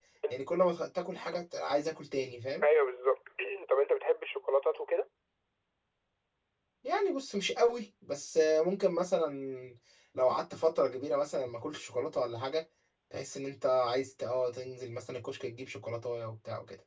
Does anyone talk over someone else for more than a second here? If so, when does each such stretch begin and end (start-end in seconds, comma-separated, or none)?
none